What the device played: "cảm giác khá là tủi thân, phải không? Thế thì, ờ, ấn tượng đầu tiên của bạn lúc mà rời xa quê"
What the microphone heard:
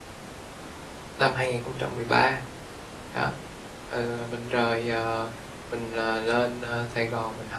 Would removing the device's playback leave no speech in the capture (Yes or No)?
No